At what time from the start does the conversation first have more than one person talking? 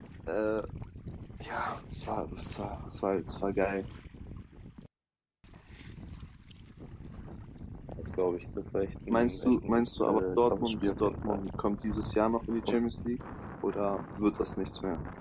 9.1 s

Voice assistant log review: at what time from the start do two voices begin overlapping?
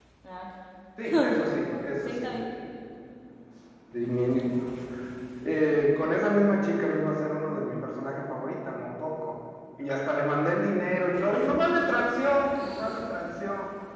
1.1 s

